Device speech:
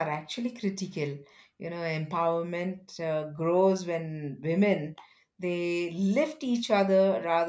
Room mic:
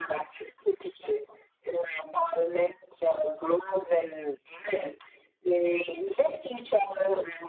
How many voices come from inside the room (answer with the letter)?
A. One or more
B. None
B